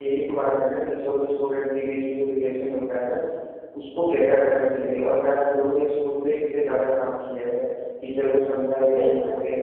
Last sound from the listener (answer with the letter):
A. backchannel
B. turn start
A